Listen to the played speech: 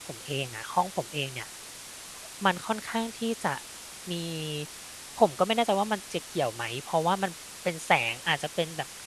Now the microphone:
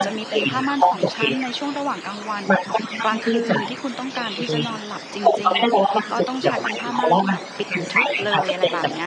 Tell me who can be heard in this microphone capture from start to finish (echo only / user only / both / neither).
both